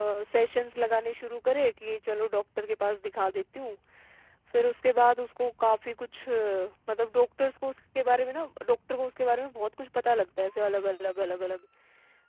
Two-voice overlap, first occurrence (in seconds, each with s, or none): none